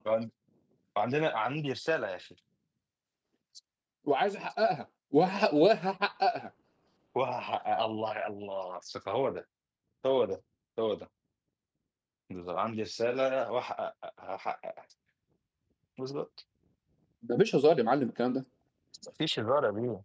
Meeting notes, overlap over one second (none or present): none